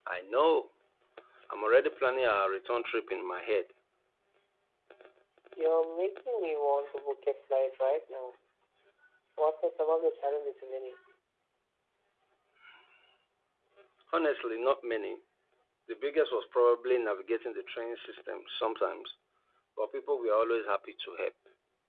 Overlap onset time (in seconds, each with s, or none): none